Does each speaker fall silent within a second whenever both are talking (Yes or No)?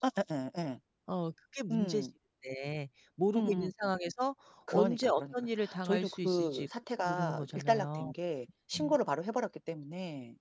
No